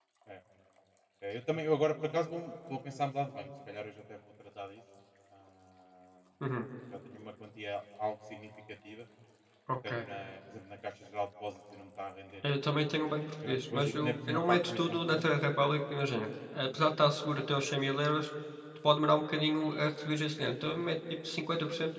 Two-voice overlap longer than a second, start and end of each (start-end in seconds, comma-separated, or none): 13.5-15.2